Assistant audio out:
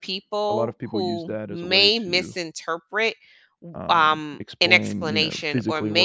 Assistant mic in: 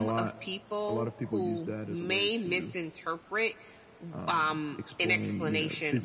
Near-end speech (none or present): none